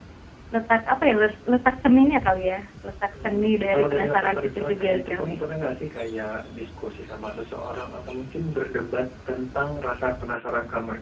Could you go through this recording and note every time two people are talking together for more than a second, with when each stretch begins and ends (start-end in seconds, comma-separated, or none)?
3.2-5.4